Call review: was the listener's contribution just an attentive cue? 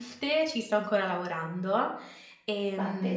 Yes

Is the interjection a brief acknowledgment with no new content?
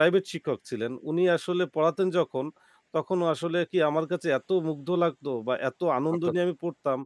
Yes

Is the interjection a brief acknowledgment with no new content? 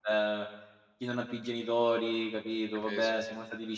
Yes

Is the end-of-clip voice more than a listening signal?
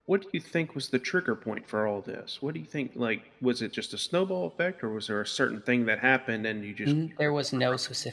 Yes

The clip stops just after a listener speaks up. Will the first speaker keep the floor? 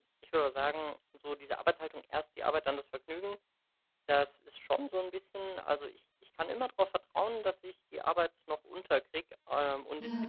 Yes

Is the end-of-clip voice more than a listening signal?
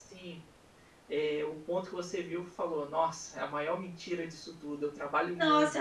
Yes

